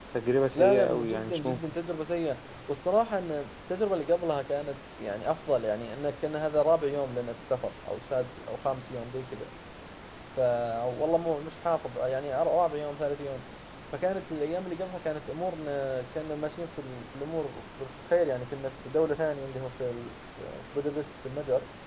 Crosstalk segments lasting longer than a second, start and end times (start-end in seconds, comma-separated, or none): 0.5-1.7